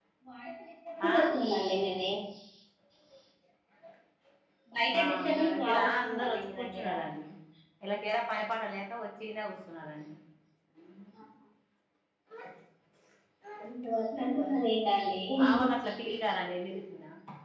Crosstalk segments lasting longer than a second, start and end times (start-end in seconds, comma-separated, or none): 5.0-6.8